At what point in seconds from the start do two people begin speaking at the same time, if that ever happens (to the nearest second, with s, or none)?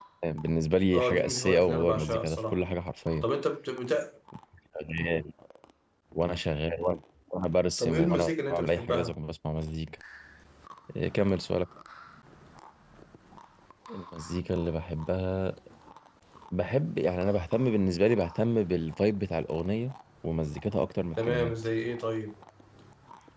1 s